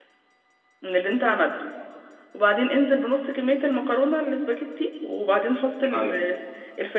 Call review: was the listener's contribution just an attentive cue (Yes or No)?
Yes